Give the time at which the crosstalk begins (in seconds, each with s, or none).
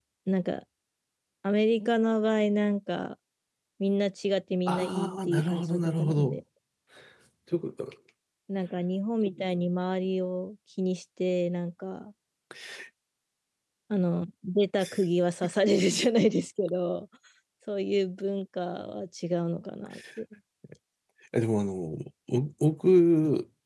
4.7 s